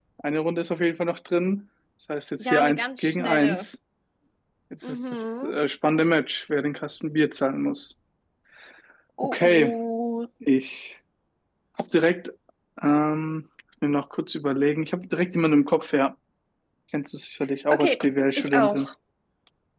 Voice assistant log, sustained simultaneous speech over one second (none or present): present